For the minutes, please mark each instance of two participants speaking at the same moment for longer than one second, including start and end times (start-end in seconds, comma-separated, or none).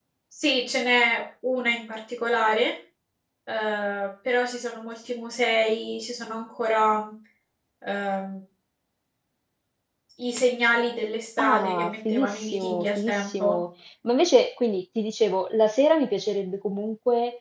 11.4-13.6